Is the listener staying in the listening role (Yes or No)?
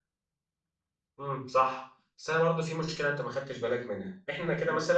Yes